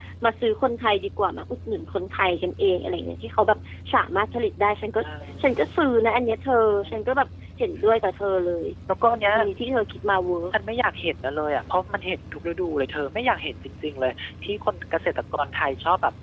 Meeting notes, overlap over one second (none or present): none